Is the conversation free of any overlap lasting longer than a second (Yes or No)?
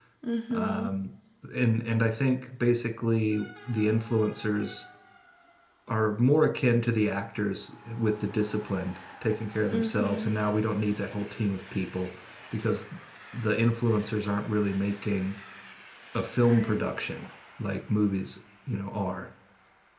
Yes